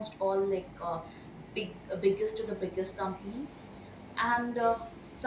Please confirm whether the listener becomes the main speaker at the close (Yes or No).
No